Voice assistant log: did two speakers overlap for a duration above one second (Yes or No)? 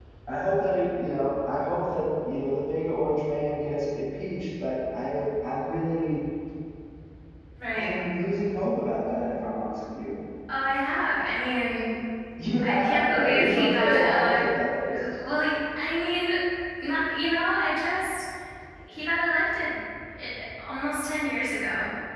Yes